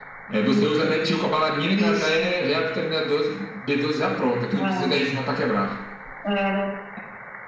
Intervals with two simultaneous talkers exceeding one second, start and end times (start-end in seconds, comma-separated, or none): none